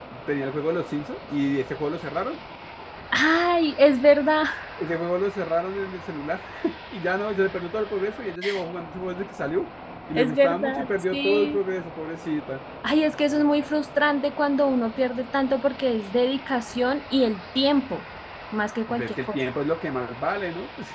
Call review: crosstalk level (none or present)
present